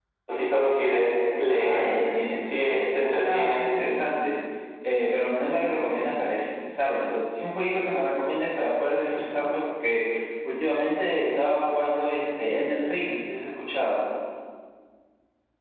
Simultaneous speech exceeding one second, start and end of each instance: 2.4-3.6

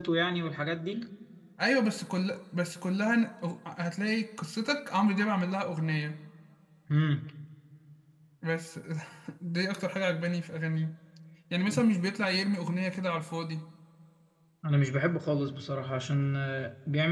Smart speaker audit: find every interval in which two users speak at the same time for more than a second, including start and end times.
none

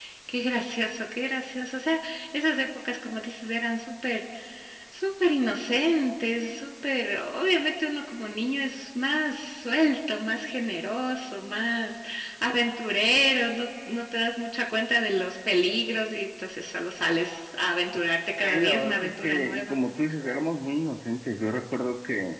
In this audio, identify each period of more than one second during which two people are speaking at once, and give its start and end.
18.4-19.8

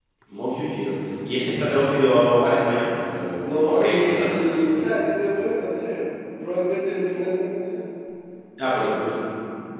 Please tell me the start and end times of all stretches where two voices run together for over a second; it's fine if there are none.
3.4-4.7

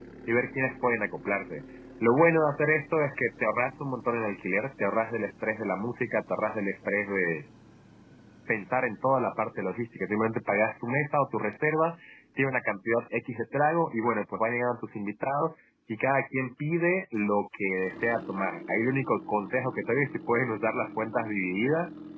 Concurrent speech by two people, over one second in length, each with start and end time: none

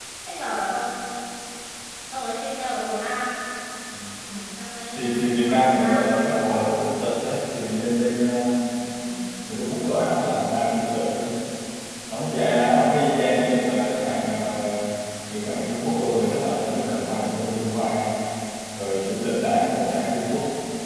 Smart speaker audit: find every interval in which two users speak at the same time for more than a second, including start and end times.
5.0-6.6

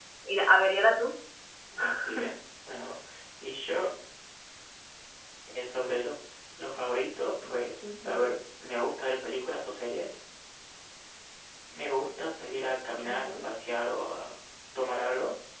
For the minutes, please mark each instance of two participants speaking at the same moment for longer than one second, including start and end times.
none

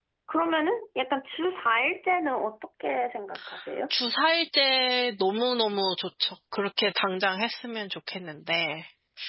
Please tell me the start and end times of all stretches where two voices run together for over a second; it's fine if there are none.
none

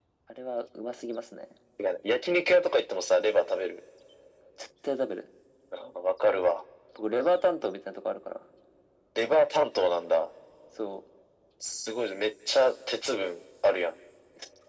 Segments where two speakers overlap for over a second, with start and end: none

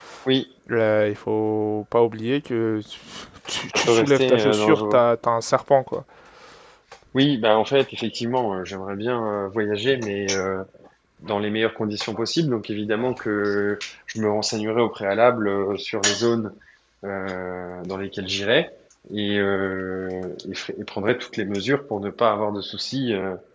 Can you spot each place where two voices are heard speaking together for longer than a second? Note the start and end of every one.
3.7-5.0

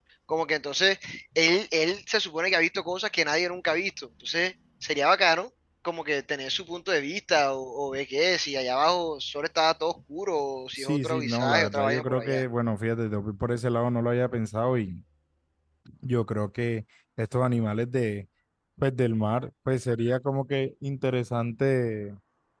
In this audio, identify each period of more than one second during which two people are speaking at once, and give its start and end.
10.7-12.4

